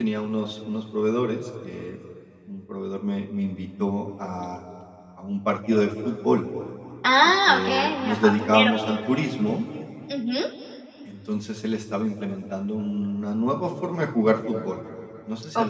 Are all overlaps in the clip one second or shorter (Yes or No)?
No